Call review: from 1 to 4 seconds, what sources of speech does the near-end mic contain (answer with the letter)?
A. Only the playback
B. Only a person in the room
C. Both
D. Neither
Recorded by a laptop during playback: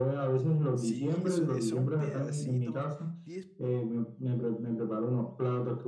C